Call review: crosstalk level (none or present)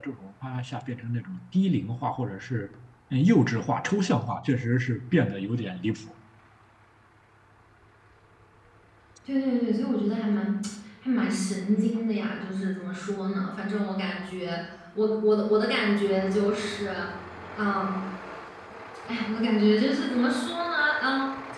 none